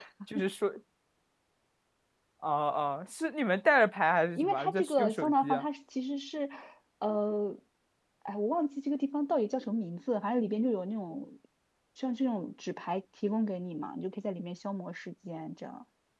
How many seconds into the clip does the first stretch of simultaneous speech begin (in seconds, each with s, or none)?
4.4 s